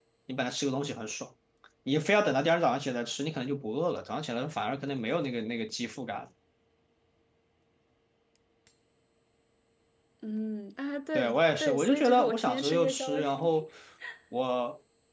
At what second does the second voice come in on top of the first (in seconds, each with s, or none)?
11.1 s